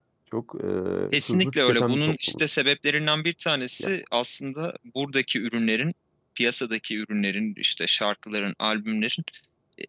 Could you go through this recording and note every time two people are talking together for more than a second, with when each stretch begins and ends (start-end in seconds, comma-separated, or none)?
1.1-2.4